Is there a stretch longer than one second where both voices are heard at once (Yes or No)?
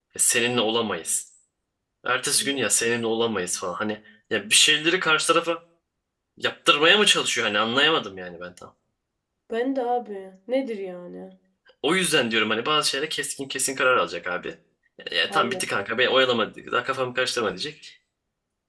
No